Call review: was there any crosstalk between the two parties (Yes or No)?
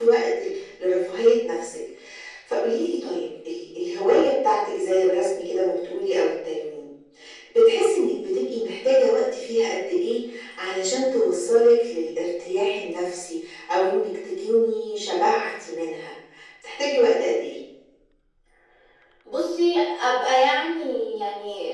No